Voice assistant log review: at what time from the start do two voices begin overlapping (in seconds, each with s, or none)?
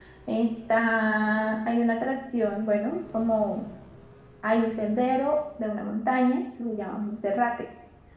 none